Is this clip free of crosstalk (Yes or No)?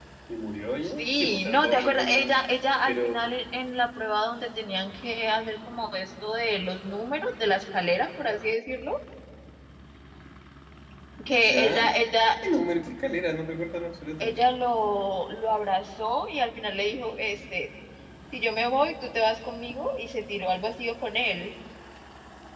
No